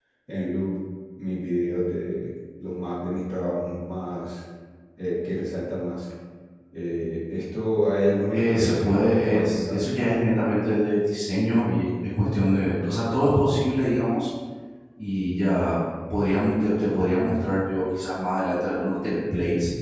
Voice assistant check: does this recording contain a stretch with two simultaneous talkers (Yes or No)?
Yes